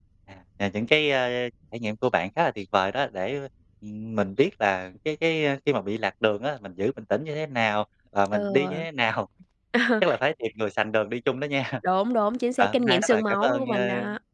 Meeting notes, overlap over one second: present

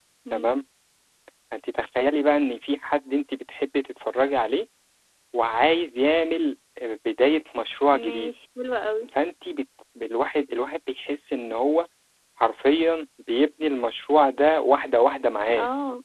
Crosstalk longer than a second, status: none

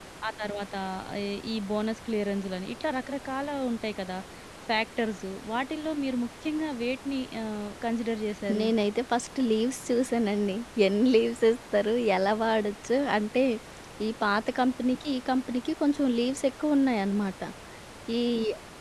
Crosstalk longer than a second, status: none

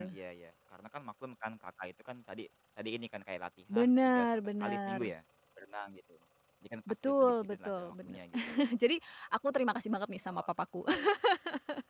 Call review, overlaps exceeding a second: present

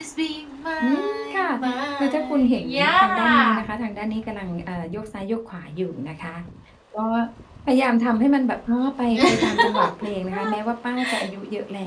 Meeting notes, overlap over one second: present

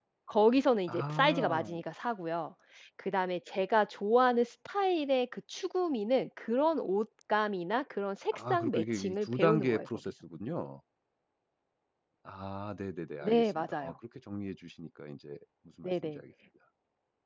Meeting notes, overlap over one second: present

